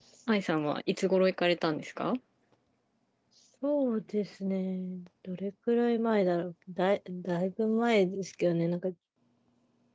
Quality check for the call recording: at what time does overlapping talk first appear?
none

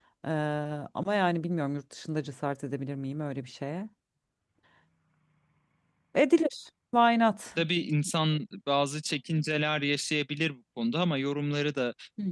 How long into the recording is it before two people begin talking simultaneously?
none

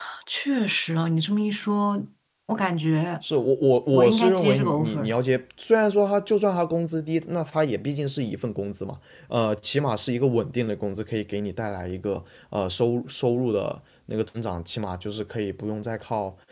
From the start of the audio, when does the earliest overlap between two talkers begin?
3.9 s

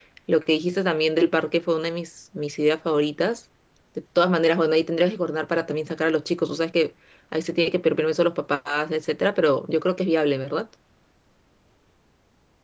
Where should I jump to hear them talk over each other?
none

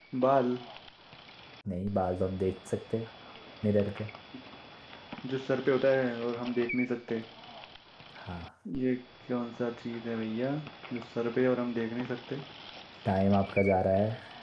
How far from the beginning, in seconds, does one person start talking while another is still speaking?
none

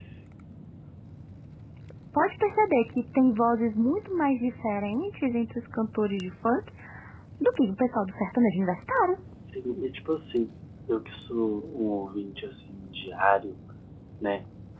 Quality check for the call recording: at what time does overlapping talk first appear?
none

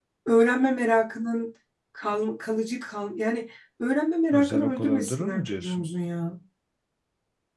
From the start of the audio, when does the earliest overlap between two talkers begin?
4.3 s

